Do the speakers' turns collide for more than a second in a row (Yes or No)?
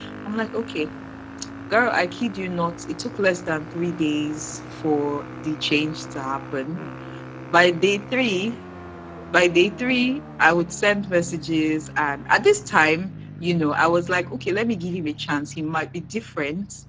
No